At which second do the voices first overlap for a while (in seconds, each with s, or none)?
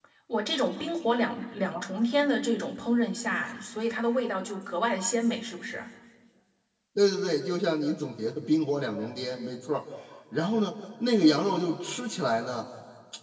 none